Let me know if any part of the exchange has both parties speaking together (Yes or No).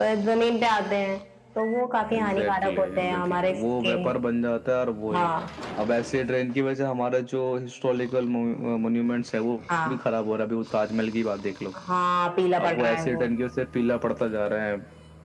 Yes